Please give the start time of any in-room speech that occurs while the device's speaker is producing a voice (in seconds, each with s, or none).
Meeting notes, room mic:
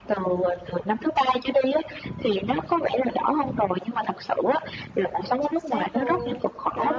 5.4 s